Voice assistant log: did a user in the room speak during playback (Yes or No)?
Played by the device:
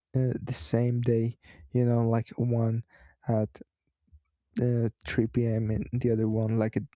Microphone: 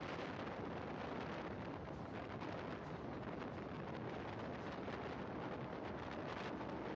No